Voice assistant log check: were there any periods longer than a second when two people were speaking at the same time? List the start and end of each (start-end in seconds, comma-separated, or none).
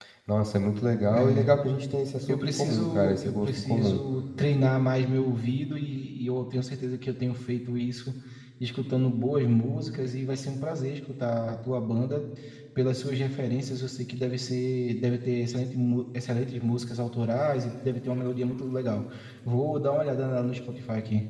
2.3-4.0